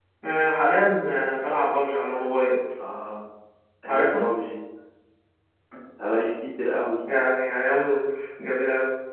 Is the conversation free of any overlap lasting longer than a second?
Yes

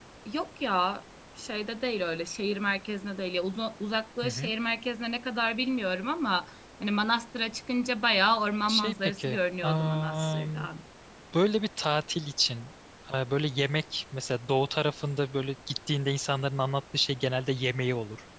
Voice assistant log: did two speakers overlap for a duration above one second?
Yes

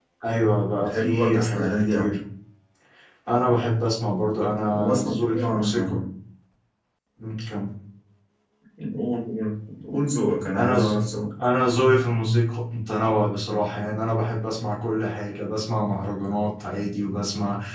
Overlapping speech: Yes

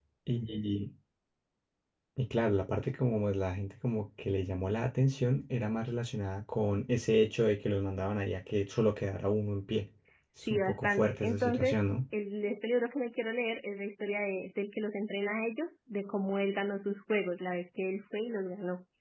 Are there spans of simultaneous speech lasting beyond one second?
Yes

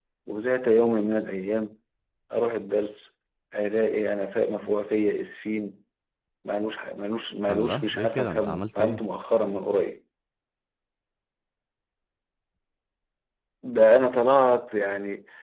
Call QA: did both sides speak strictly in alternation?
No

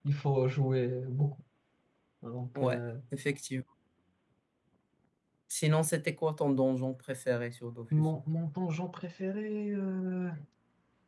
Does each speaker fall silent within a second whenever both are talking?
Yes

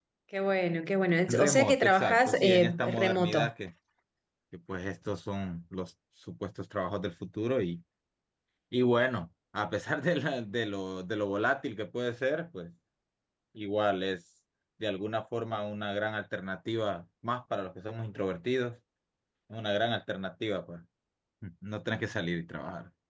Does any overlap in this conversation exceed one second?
Yes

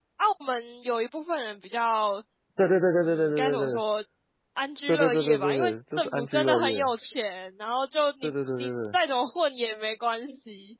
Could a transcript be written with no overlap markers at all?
No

